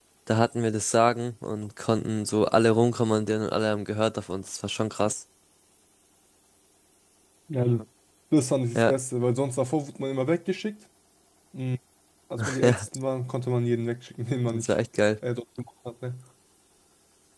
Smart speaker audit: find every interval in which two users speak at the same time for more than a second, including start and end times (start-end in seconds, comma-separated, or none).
none